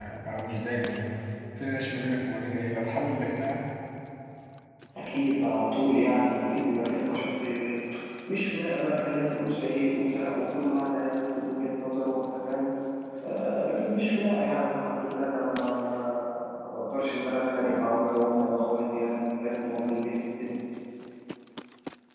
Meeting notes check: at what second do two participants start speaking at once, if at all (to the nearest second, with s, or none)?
none